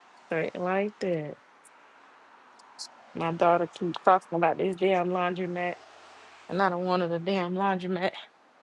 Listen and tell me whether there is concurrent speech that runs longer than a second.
No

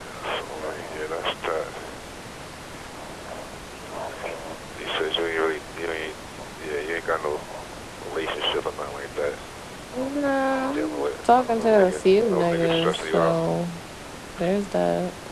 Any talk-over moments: Yes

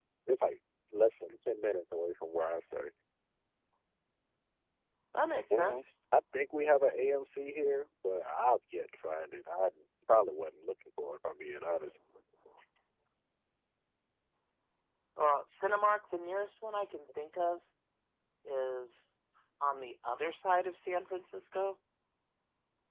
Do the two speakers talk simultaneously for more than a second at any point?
No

